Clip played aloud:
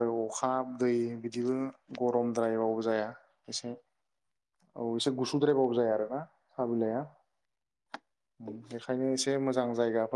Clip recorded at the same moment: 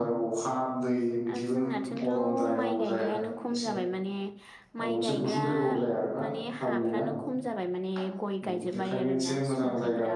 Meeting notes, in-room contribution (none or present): present